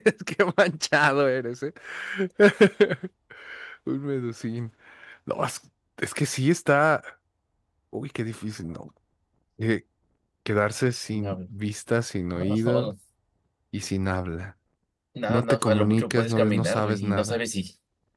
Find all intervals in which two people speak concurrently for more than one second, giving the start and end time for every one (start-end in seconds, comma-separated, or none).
15.3-17.4